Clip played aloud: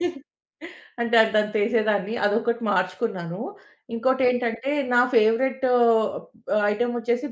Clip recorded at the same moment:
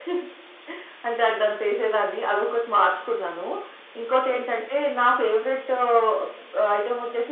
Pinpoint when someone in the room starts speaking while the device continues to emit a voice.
none

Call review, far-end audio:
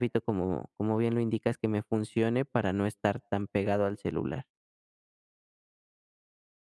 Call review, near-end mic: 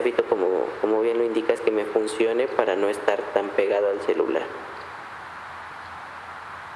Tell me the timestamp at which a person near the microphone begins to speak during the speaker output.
none

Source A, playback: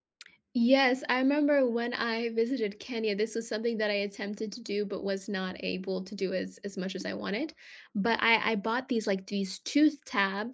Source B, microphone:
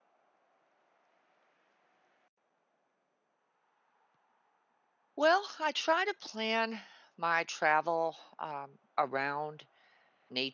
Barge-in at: 5 s

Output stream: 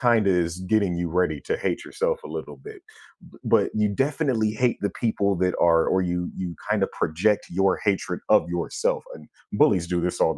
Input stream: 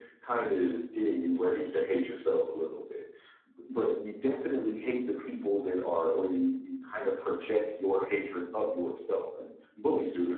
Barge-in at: none

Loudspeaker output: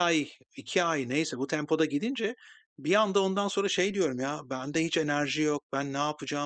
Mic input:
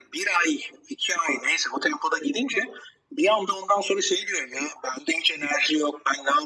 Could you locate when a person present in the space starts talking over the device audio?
none

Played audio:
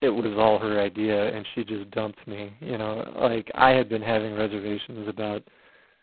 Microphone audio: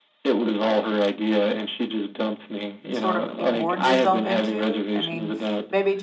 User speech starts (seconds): 3 s

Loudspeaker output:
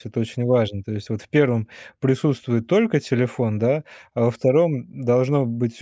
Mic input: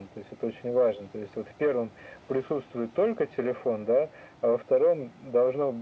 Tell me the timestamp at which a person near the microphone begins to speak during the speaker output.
none

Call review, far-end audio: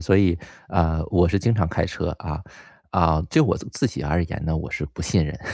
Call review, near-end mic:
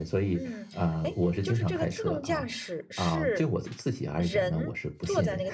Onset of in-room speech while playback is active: 0 s

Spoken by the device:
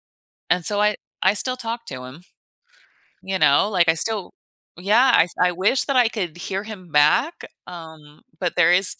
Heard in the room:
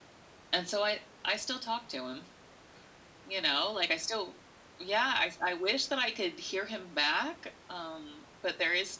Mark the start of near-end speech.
none

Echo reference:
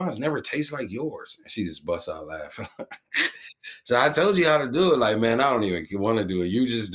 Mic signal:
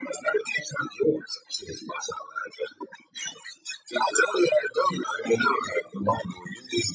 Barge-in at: none

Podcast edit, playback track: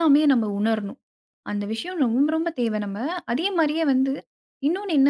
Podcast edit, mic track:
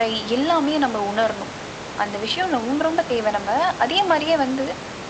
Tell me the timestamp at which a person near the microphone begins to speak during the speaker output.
none

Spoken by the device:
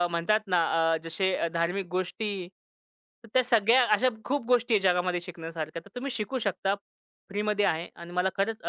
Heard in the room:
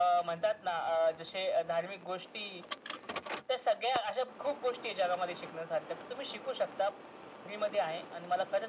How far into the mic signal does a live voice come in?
none

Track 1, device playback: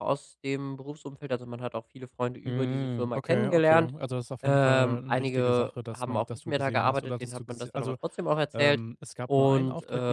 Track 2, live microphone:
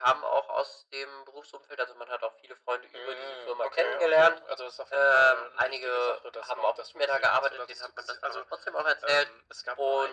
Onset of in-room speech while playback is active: none

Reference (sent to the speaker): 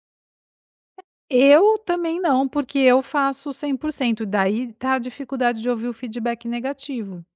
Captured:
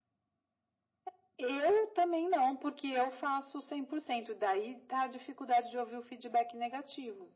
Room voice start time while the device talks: none

